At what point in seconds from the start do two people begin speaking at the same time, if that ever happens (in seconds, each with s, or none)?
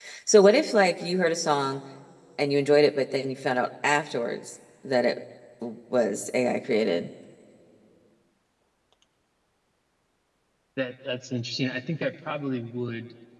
none